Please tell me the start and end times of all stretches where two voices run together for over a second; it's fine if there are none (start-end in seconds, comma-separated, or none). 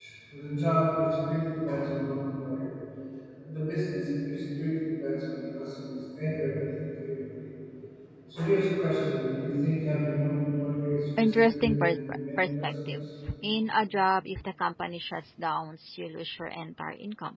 11.2-13.0